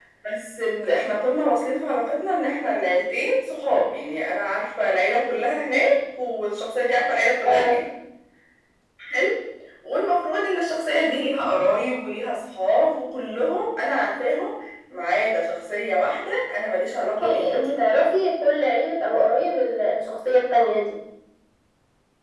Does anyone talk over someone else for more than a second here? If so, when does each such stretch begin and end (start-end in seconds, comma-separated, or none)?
none